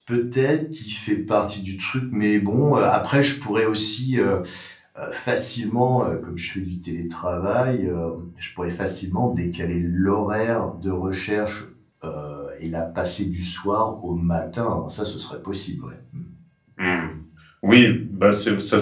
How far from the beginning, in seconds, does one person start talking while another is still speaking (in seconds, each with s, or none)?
none